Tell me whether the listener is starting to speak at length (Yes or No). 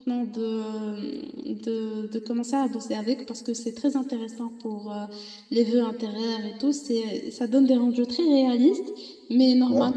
No